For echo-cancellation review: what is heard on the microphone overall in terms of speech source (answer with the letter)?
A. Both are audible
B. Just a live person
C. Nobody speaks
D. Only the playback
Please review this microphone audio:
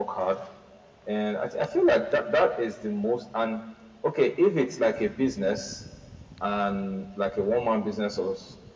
D